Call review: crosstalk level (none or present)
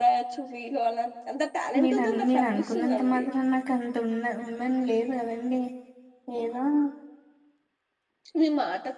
present